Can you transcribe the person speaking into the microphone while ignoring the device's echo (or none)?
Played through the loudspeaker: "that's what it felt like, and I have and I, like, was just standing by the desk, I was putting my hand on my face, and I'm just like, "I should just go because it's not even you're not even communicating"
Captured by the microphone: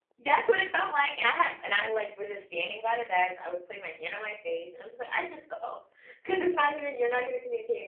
none